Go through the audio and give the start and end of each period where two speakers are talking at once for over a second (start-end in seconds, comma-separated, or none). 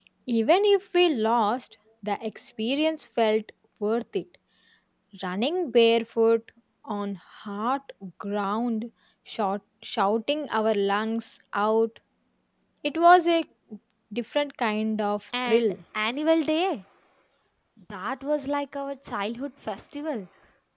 none